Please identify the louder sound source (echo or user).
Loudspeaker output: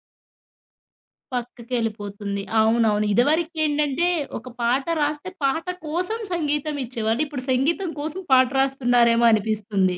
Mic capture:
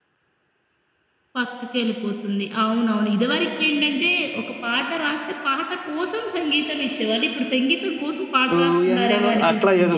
user